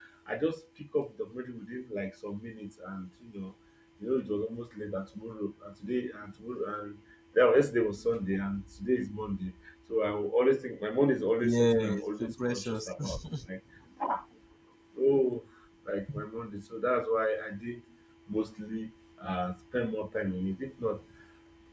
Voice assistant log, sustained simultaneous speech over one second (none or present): present